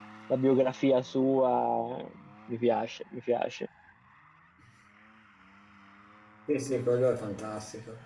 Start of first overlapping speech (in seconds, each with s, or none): none